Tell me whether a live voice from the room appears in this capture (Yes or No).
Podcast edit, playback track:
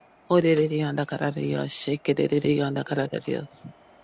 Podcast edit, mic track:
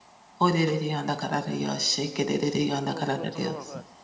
Yes